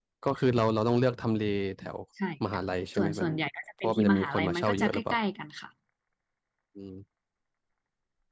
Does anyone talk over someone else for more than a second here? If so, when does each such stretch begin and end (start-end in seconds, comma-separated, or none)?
3.8-5.2